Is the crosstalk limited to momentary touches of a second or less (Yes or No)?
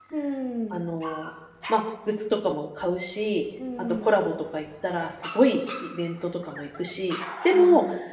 Yes